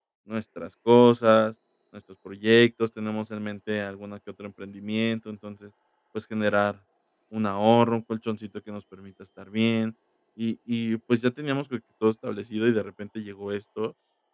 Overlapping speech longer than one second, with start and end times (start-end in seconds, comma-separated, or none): none